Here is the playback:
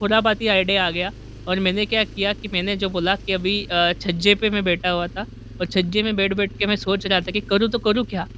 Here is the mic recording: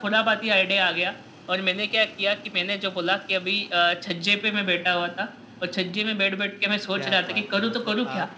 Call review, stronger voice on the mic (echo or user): echo